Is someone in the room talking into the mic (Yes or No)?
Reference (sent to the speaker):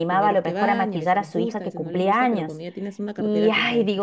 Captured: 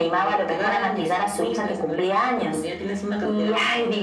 No